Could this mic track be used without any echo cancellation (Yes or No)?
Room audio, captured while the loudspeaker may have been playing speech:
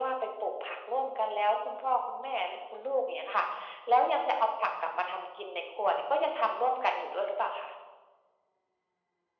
No